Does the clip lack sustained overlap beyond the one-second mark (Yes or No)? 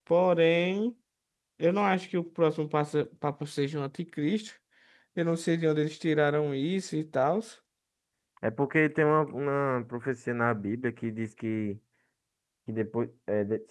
Yes